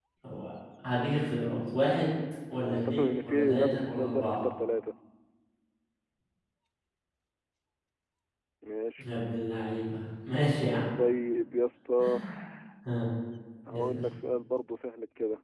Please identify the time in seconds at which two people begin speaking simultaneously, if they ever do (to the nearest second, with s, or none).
3 s